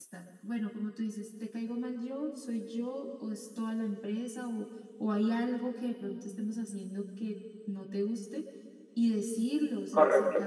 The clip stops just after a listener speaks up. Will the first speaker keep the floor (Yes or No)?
Yes